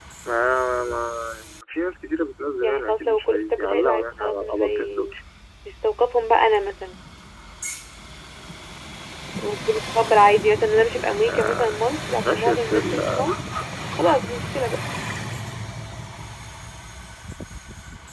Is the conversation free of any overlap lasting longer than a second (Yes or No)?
No